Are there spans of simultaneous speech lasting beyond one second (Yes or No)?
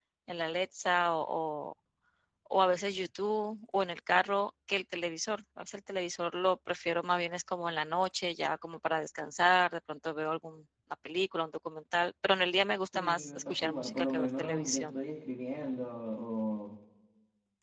Yes